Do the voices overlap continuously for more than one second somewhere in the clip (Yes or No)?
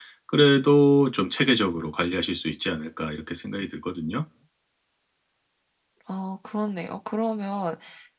No